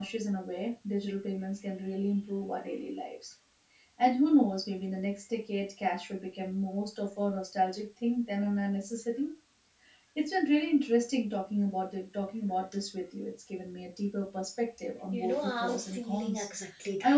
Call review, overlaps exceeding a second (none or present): present